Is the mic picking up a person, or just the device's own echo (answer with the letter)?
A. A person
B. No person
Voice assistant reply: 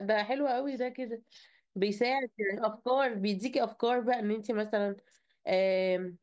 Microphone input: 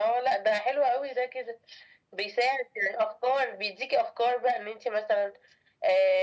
B